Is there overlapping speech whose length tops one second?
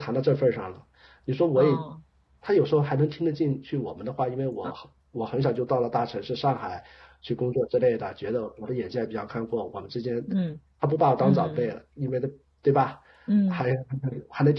No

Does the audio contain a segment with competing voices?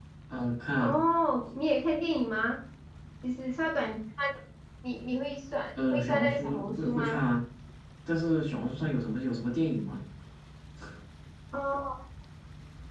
Yes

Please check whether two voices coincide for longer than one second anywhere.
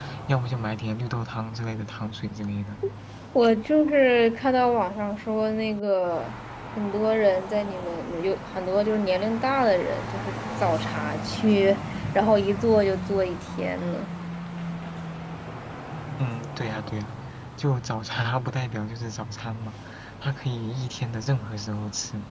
No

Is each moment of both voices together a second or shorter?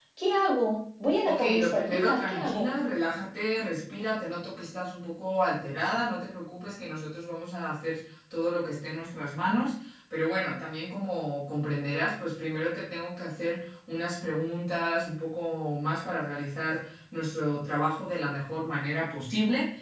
No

